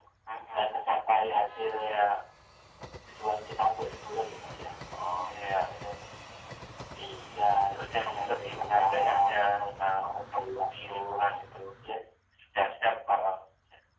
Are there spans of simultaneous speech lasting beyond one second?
Yes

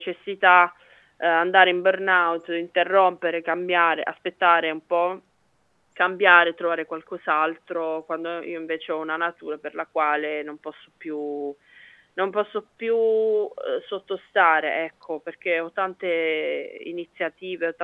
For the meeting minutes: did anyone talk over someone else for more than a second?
No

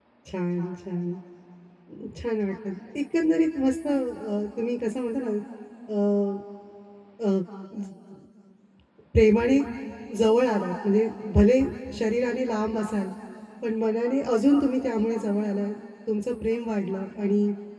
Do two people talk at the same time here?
No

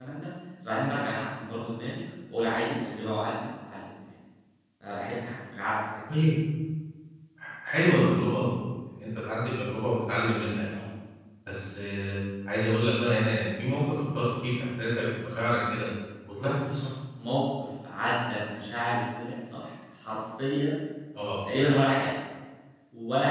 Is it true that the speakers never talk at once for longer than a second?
Yes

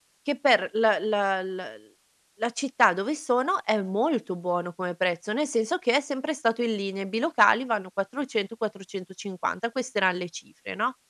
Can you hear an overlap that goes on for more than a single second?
No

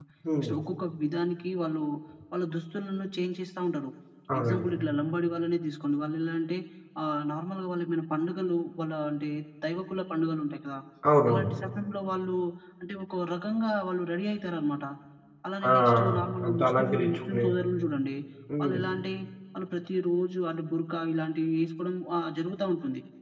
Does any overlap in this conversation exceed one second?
Yes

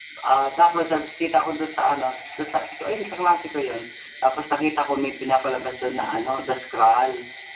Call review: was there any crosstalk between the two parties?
No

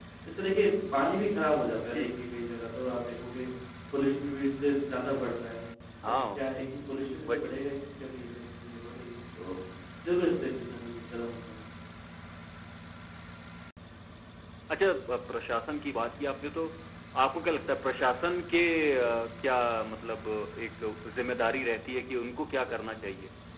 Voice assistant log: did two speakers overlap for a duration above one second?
No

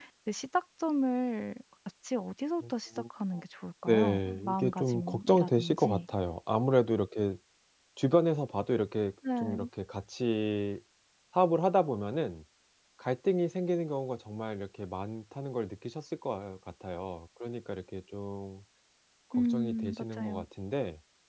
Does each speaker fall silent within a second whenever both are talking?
No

